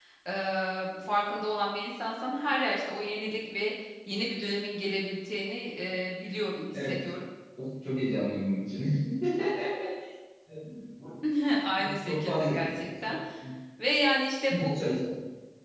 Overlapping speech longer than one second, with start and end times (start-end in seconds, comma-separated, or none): 11.8-13.2